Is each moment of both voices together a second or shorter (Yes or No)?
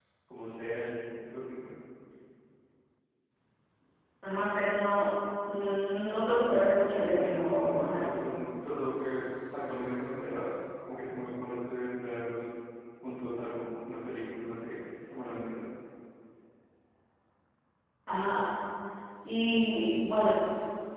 No